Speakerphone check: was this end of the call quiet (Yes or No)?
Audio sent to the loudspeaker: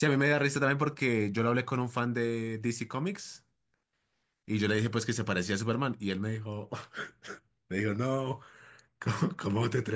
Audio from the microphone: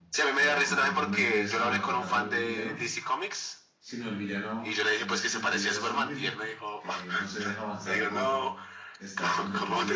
No